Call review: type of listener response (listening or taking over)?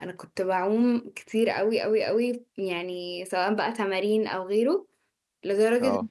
listening